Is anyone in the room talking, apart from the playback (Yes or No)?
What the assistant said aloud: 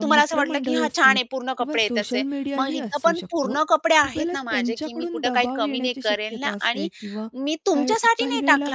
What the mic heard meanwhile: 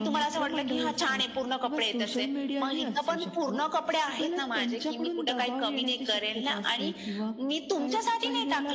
No